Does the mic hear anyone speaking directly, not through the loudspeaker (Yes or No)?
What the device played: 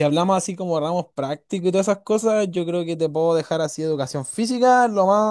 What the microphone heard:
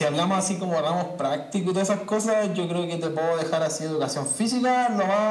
No